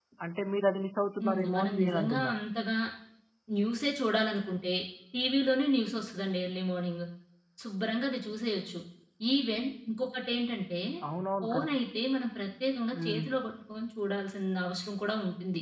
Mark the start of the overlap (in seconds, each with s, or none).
1.2 s